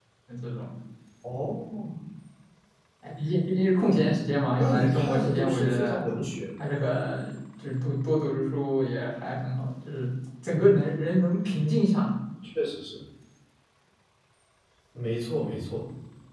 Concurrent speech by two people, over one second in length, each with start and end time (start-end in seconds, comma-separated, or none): 4.5-6.0